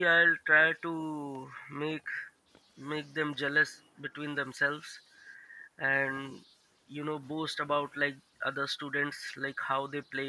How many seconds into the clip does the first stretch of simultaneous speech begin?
none

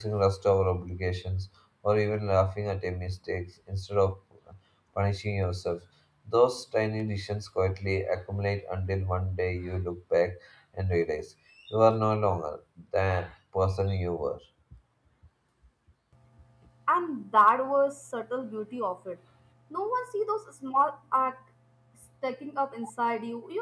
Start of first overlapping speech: none

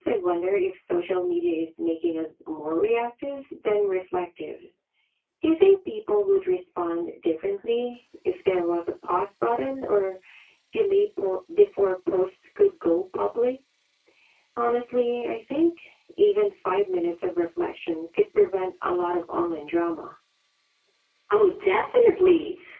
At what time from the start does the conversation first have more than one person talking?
none

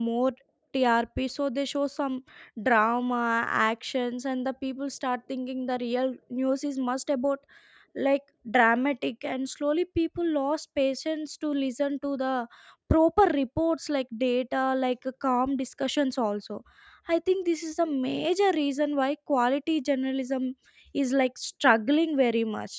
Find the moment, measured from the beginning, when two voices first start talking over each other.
none

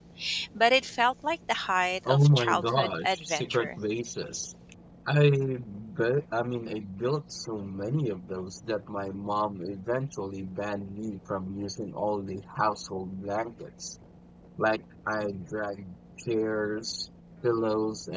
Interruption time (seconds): 2.0 s

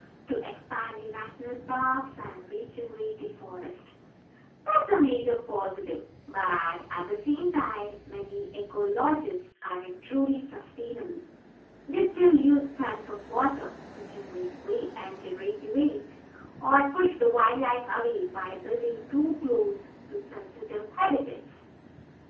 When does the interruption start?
none

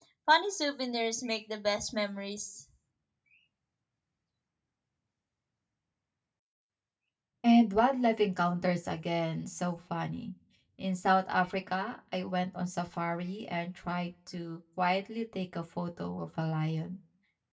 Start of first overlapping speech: none

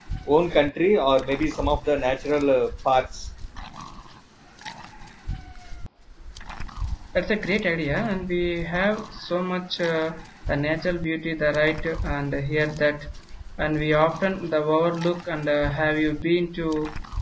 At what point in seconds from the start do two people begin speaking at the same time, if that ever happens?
none

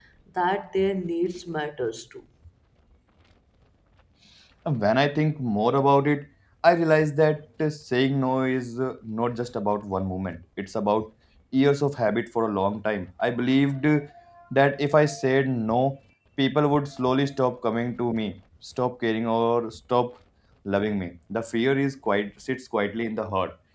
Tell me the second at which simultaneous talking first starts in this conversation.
none

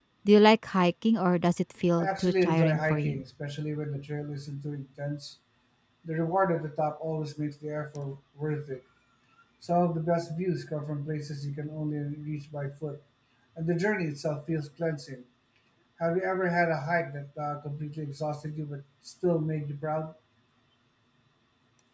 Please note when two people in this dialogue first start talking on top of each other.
2.0 s

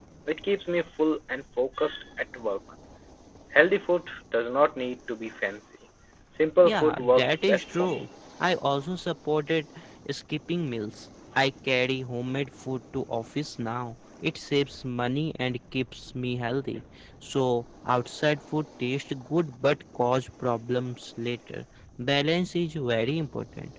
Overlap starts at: 6.6 s

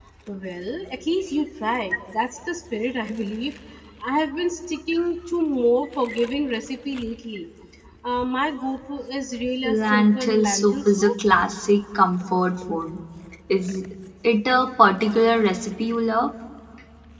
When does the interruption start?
9.6 s

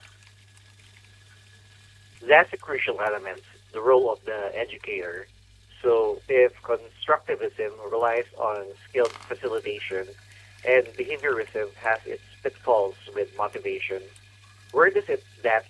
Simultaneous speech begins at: none

